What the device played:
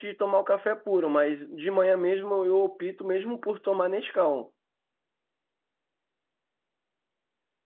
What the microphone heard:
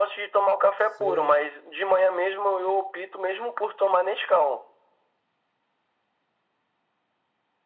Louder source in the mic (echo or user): echo